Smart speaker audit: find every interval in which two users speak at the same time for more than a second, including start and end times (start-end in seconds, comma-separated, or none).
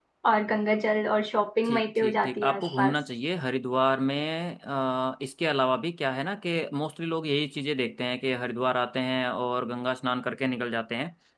1.7-3.0